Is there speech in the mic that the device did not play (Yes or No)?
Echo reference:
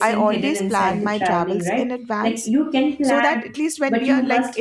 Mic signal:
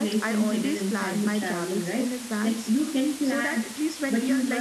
No